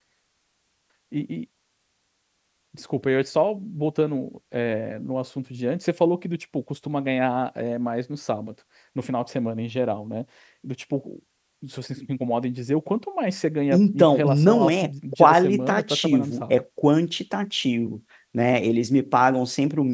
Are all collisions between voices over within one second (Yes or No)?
No